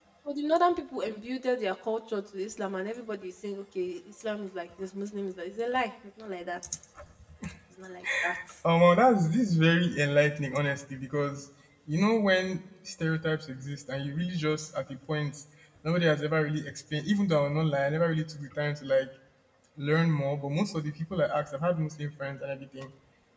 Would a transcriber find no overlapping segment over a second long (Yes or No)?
Yes